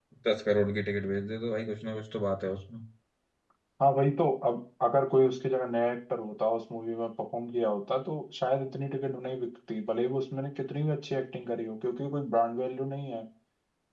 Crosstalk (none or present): none